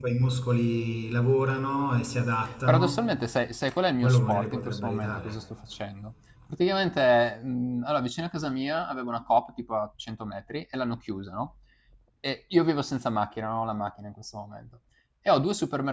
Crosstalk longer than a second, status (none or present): present